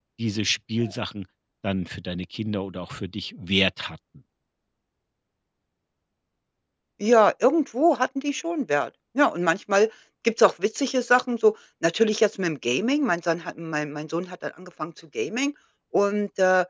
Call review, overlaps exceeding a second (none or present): none